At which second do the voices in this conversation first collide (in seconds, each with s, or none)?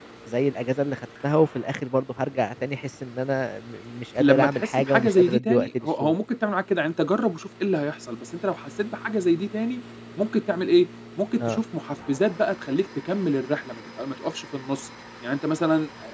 4.2 s